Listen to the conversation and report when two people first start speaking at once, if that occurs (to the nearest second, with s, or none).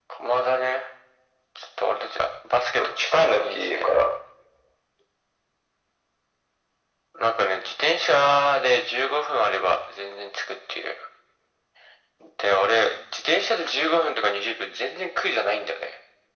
3 s